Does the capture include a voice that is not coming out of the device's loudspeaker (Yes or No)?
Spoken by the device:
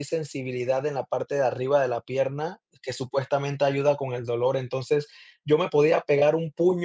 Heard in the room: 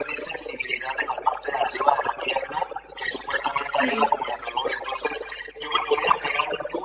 Yes